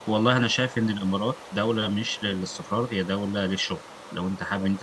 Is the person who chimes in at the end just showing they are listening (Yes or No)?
Yes